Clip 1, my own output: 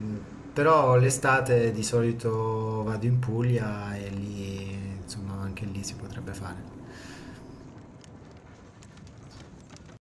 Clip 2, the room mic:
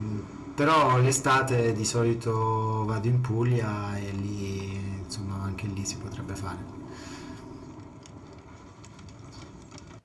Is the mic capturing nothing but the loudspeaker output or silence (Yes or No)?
Yes